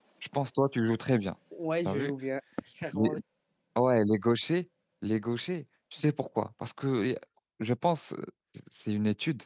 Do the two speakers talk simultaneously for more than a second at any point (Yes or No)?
No